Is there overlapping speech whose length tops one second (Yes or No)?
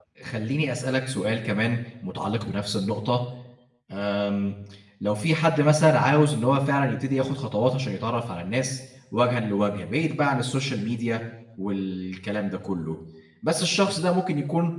No